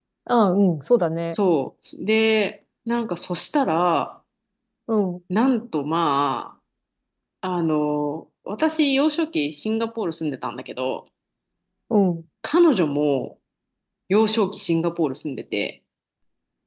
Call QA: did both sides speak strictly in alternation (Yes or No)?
Yes